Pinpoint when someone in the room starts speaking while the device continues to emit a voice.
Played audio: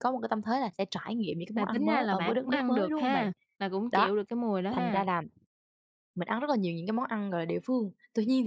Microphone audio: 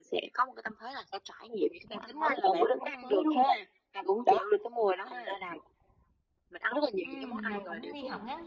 7.0 s

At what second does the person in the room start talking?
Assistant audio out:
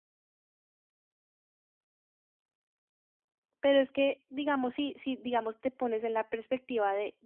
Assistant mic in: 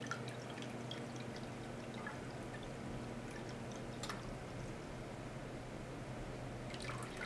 none

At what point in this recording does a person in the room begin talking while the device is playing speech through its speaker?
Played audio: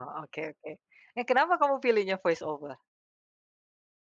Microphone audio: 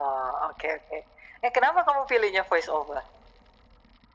none

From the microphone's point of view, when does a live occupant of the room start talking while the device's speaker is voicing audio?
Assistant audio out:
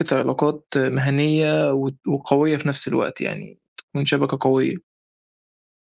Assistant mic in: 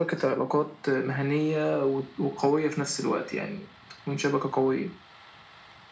none

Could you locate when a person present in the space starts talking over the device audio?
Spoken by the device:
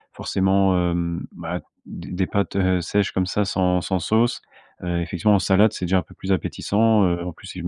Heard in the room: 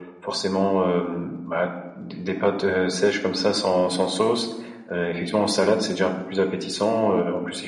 none

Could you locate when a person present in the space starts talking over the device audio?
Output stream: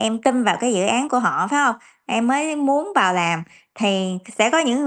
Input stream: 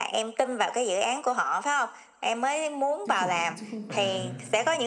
3.0 s

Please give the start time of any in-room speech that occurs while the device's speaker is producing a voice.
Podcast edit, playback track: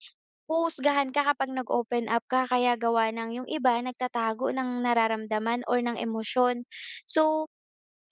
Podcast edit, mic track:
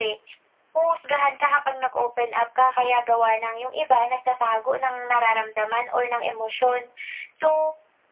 none

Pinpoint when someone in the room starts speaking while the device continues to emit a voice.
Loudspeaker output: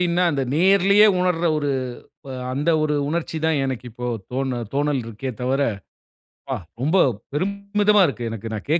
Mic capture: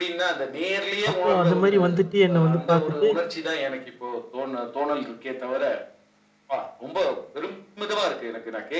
1.1 s

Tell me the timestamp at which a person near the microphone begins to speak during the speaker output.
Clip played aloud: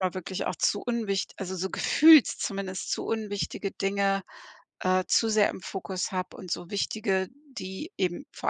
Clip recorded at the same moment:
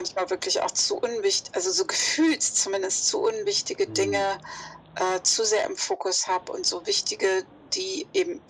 3.8 s

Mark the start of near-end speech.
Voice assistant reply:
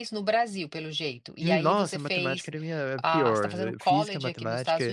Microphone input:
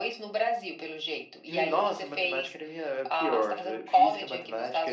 none

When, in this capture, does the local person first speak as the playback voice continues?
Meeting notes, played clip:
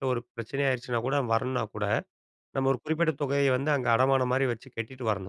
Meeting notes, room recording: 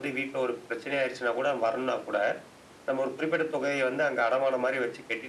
none

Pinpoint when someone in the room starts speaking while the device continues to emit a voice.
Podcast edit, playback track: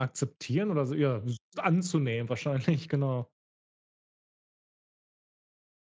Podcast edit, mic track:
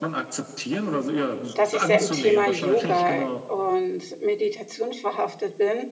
1.5 s

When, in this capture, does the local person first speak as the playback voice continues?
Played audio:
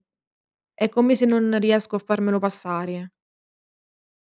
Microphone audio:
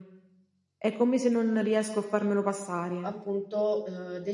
3.0 s

